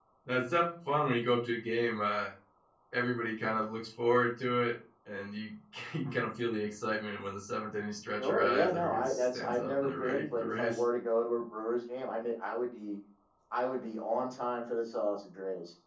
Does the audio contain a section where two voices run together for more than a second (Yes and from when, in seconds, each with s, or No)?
Yes, from 8.2 s